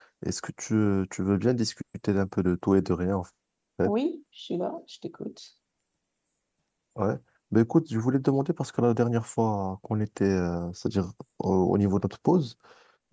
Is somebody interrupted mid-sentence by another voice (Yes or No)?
No